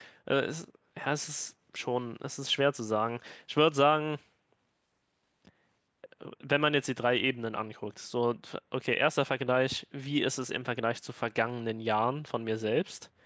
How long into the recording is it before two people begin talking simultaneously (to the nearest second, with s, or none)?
none